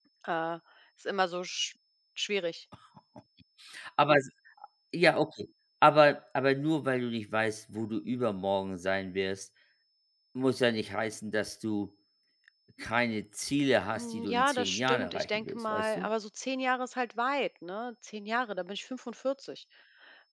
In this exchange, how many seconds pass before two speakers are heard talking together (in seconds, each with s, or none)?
14.0 s